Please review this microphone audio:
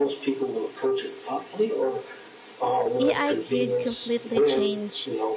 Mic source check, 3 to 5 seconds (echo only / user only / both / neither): both